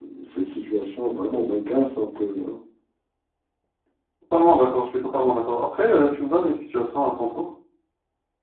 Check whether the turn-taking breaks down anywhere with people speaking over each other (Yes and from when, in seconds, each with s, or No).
No